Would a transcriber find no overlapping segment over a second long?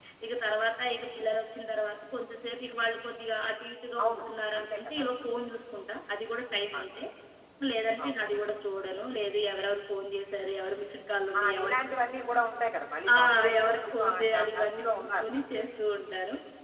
No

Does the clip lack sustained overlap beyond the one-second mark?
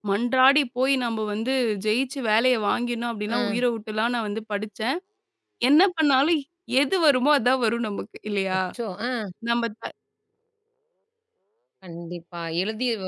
Yes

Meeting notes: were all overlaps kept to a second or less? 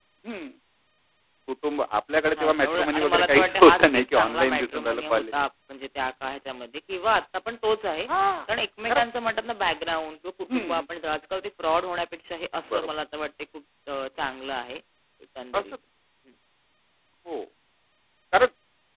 No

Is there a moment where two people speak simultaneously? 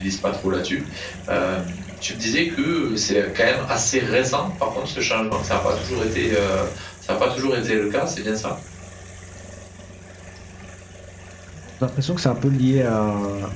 No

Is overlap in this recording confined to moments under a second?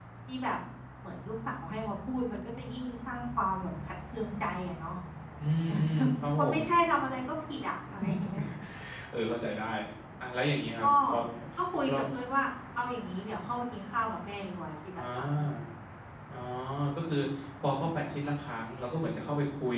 Yes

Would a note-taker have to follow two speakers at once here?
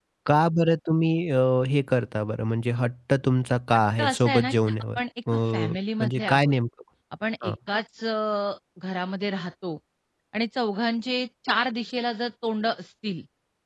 Yes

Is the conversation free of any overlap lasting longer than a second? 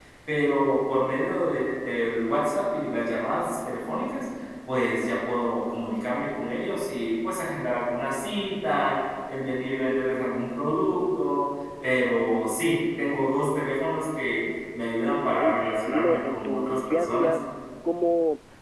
No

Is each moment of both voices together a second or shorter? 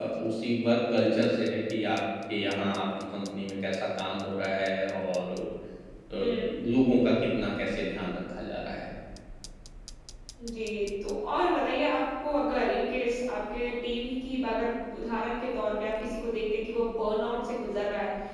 Yes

